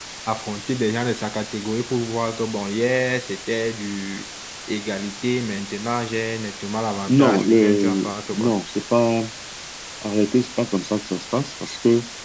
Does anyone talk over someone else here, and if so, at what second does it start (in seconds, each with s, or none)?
7.1 s